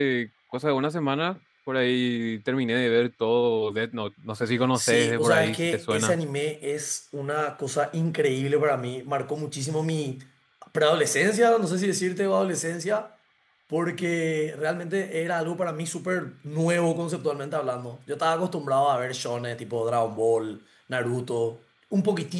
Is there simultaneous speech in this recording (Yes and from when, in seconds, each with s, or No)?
Yes, from 4.8 s